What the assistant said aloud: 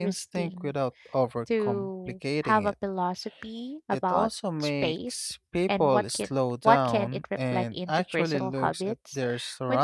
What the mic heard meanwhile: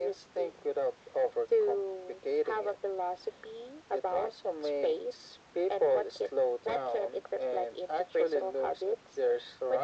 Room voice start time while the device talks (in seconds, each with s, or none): none